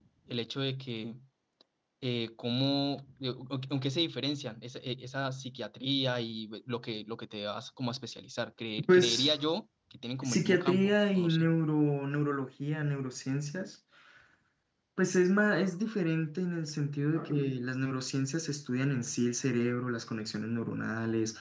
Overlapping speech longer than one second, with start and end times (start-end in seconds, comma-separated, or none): 10.2-11.5